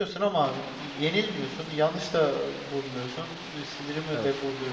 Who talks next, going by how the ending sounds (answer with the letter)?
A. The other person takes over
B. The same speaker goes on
B